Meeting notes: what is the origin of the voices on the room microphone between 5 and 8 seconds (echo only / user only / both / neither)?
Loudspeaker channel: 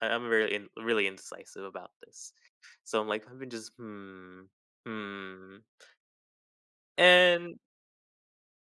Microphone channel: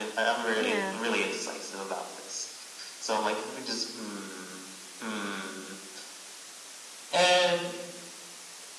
echo only